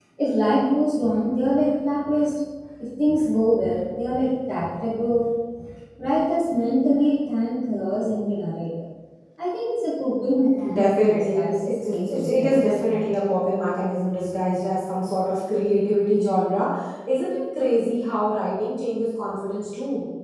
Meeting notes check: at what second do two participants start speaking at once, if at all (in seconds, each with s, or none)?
10.6 s